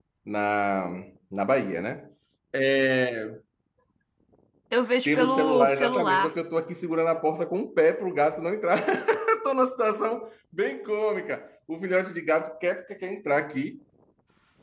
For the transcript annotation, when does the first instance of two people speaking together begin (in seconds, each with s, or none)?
5.0 s